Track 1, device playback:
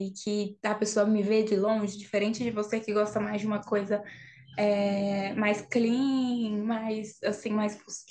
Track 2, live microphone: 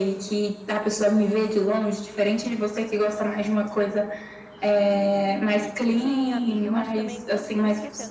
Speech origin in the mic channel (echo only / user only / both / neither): both